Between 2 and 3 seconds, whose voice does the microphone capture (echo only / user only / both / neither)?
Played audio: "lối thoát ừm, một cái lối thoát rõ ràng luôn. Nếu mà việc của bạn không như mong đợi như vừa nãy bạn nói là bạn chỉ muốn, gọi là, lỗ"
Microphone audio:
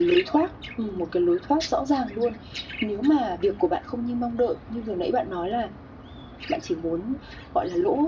echo only